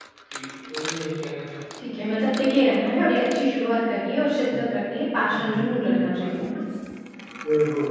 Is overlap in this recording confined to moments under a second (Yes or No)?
Yes